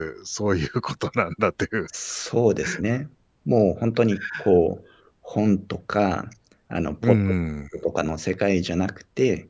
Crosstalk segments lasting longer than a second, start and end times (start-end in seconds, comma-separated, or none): none